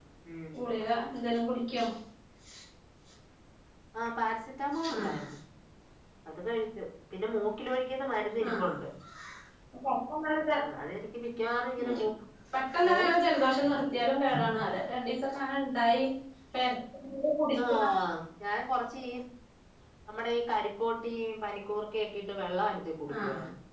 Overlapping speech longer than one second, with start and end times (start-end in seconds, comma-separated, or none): none